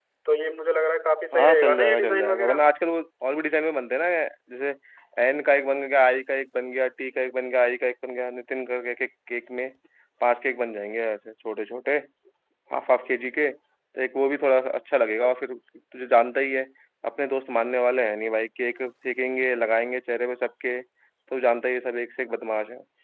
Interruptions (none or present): present